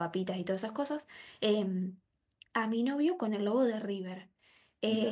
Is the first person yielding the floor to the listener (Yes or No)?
No